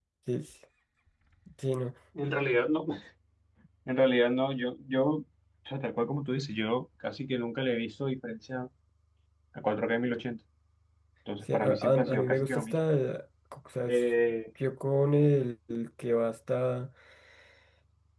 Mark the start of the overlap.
11.5 s

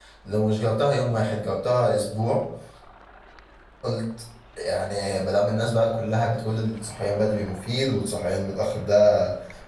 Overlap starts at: none

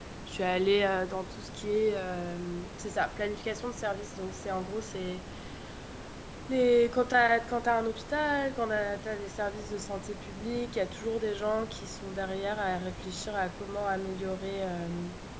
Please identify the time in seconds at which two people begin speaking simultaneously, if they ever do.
none

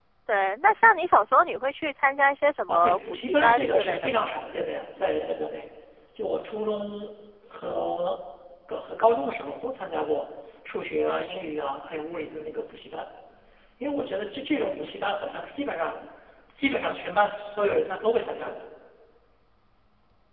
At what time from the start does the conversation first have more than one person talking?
2.7 s

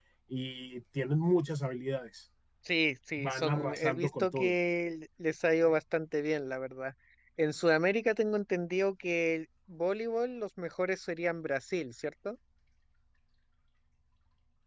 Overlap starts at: 3.2 s

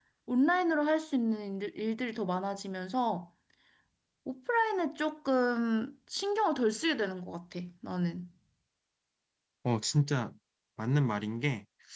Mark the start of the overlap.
none

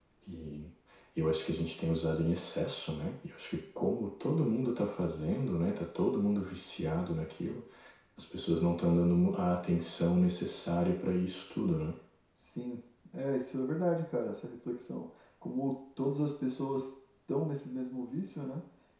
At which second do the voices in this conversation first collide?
none

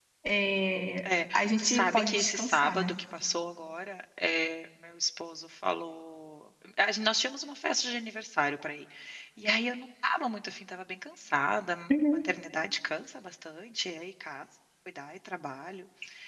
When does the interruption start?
1.3 s

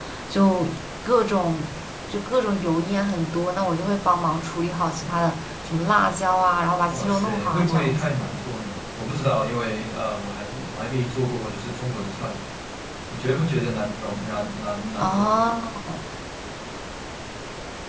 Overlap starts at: 6.9 s

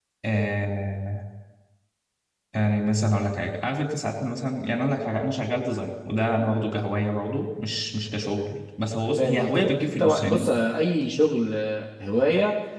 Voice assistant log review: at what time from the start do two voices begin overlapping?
9.1 s

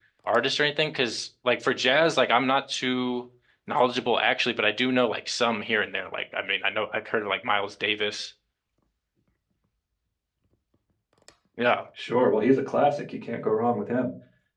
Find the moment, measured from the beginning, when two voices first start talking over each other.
none

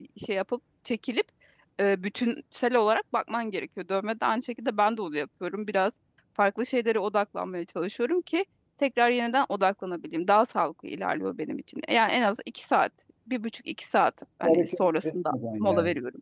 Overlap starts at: 14.4 s

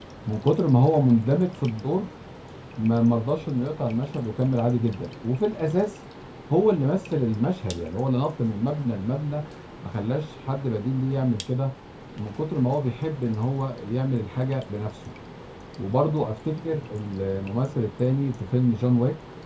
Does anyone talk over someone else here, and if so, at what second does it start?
none

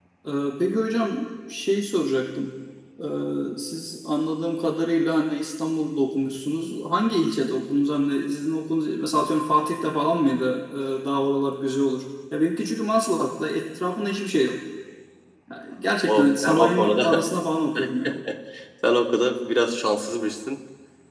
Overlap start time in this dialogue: 16.1 s

